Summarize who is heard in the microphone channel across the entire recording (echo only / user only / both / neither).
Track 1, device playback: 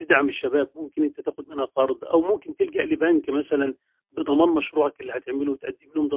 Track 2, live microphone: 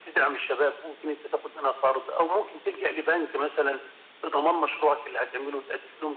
echo only